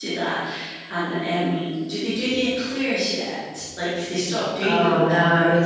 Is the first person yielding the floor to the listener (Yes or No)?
Yes